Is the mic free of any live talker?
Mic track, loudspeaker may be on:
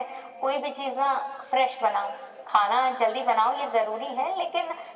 Yes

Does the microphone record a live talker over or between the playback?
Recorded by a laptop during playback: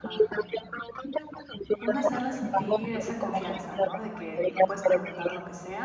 Yes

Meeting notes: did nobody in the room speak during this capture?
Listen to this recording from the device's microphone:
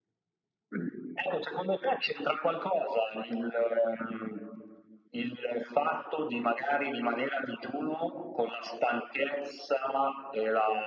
Yes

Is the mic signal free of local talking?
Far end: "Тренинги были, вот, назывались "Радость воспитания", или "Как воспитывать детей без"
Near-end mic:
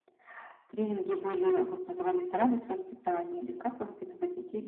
Yes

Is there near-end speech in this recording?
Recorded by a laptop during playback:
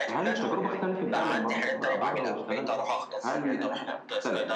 Yes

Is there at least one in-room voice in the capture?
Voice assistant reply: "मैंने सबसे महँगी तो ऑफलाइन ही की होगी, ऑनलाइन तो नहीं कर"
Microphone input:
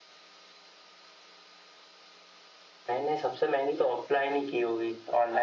No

